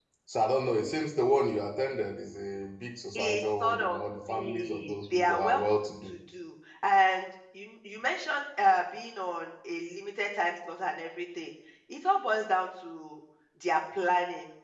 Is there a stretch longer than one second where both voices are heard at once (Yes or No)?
Yes